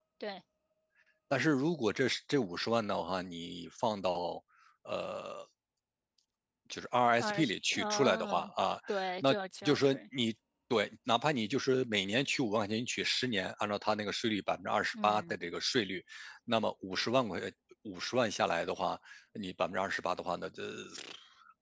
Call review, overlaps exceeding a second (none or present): present